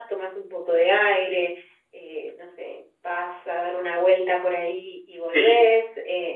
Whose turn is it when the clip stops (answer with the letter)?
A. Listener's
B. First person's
B